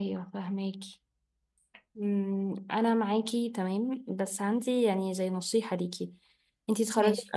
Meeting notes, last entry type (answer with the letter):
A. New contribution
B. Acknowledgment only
B